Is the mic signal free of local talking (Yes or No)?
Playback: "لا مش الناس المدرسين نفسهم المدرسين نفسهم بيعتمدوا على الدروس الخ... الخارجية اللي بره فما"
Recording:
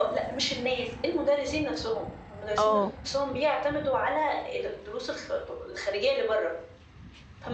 No